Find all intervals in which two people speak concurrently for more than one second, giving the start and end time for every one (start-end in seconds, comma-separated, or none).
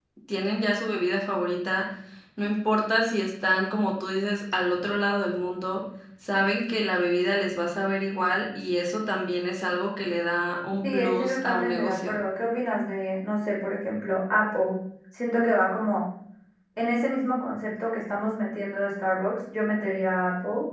10.8-12.1